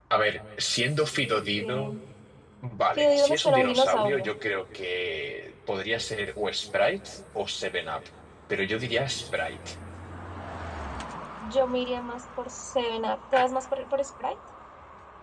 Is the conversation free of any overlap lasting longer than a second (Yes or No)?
No